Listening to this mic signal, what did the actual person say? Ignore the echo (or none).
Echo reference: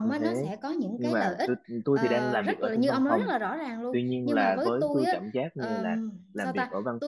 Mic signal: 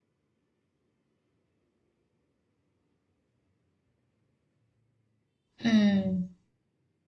ừ